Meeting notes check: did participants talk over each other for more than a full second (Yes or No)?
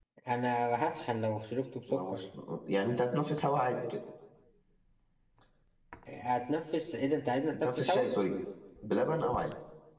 No